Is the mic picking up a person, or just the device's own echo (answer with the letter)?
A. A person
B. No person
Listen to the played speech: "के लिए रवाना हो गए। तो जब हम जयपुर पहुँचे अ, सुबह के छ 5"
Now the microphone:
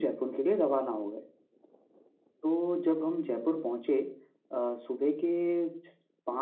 B